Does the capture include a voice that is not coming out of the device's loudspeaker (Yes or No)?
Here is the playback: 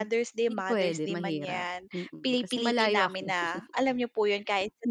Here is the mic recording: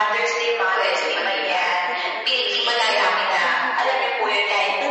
Yes